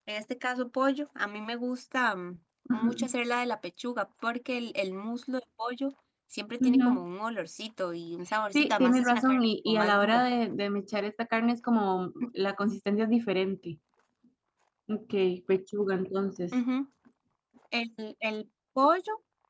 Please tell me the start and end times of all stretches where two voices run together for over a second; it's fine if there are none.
8.5-10.2

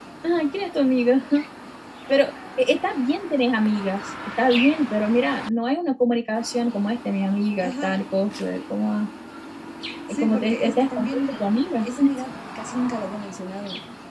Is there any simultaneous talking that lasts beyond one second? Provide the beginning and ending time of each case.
10.1-11.3

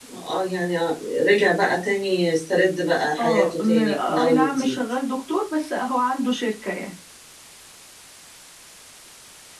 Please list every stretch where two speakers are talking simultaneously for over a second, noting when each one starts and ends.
3.2-4.8

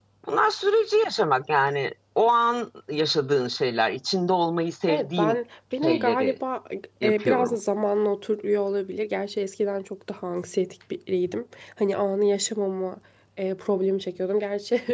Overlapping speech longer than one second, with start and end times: none

